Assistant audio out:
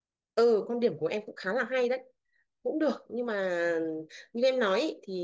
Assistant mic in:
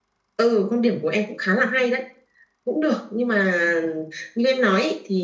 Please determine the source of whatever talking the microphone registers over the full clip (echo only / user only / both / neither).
echo only